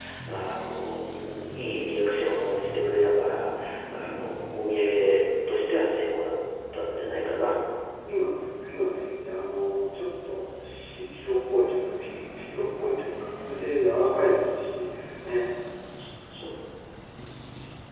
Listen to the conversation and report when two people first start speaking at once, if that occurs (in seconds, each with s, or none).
none